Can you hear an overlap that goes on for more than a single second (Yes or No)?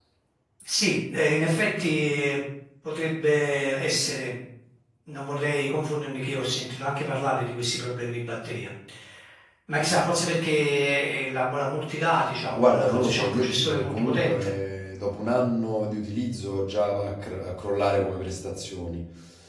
Yes